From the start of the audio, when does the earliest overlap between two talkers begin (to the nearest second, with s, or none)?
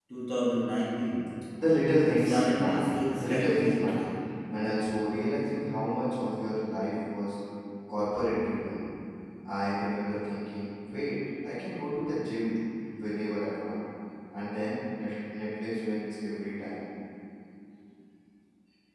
2 s